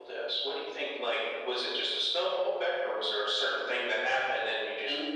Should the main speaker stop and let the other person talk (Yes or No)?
Yes